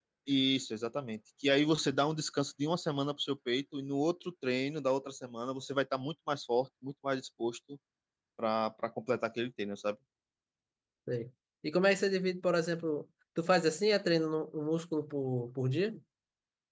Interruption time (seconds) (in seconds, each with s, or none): none